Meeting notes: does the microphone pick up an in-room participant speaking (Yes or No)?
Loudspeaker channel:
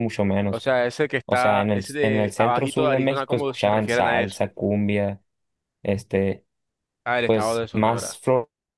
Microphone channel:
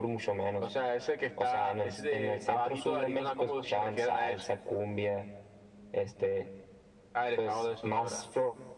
No